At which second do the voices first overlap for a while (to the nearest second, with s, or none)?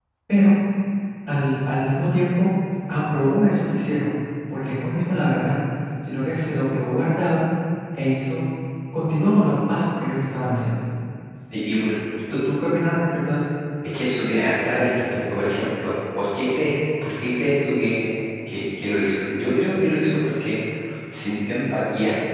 none